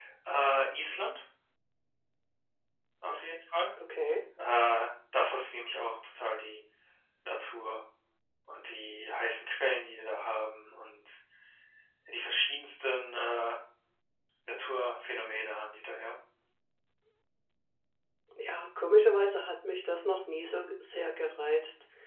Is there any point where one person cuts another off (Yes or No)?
No